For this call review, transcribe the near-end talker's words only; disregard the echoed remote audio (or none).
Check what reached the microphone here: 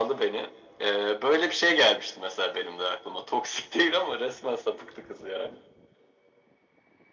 none